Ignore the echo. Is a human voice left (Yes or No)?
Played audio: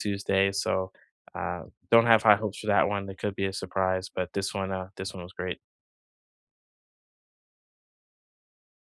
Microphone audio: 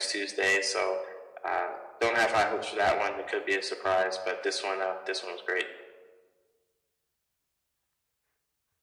No